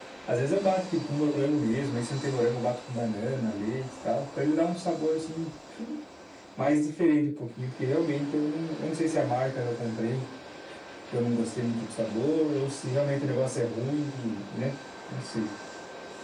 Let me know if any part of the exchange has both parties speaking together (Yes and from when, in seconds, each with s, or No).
No